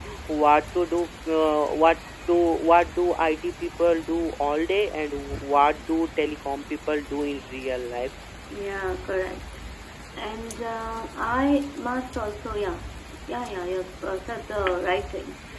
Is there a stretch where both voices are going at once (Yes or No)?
No